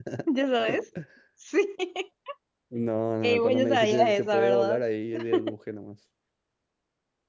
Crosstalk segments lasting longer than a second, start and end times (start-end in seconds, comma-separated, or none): 3.2-4.8